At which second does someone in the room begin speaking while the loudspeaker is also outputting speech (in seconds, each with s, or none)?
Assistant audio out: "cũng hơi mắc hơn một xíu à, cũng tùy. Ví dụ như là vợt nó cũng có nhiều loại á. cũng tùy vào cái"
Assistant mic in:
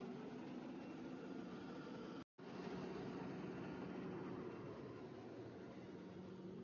none